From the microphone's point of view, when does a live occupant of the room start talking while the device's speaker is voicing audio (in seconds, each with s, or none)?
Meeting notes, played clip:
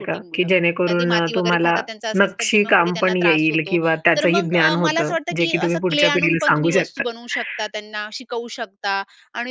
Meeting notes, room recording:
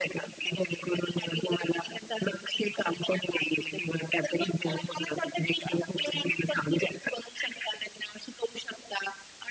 none